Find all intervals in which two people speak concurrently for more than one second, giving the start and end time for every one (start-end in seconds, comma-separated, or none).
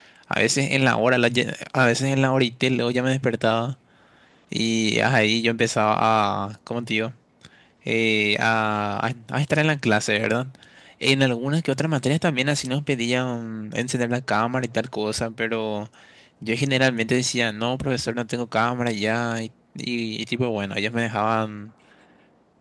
none